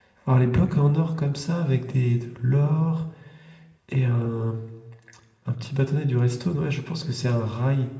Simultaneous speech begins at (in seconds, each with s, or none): none